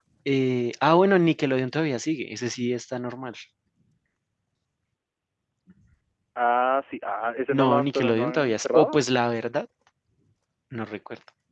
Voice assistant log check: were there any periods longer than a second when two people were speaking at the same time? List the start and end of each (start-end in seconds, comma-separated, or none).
7.5-9.0